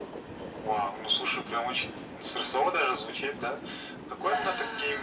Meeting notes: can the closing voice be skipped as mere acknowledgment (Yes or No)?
Yes